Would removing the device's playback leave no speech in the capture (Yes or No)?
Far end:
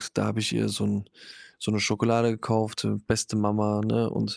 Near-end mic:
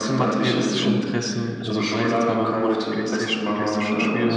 No